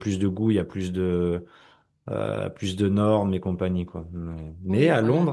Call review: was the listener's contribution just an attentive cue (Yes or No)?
Yes